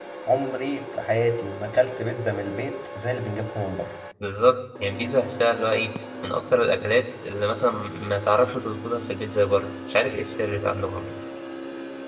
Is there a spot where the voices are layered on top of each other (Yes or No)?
No